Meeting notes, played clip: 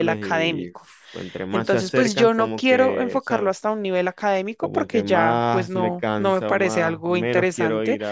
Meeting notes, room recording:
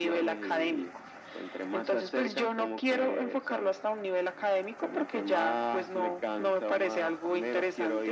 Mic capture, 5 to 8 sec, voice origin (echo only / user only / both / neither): echo only